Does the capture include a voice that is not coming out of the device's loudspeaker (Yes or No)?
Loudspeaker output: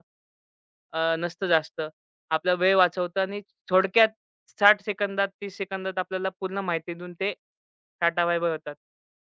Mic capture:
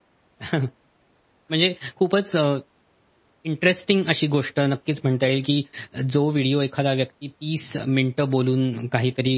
Yes